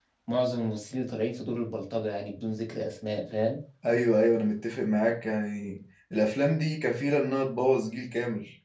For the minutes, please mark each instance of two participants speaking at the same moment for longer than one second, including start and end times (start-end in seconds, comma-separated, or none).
none